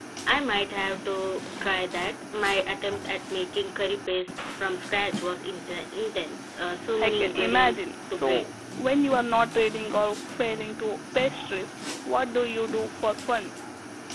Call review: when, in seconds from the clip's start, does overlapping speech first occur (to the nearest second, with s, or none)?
7 s